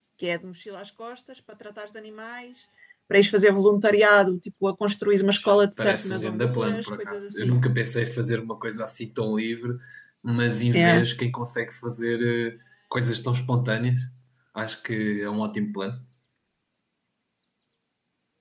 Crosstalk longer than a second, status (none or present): present